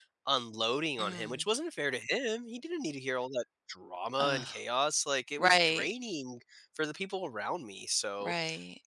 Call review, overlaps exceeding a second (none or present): none